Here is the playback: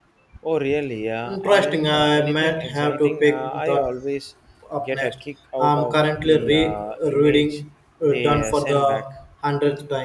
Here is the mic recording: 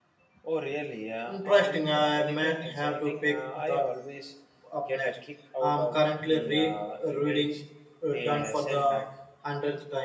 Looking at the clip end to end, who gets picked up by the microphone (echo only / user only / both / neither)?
echo only